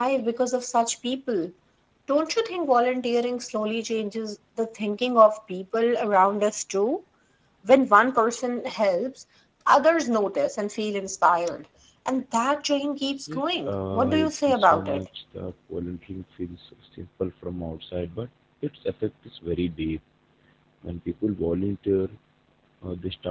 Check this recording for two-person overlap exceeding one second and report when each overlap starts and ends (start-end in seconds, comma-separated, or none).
13.3-15.0